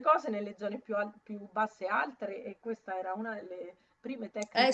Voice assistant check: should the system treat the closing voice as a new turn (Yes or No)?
Yes